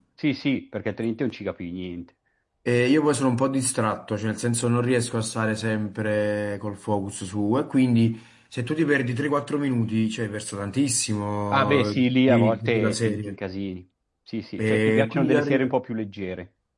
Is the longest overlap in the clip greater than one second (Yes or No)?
Yes